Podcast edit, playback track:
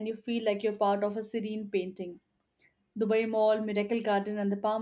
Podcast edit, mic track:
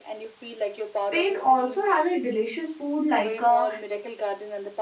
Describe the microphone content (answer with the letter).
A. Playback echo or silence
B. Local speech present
B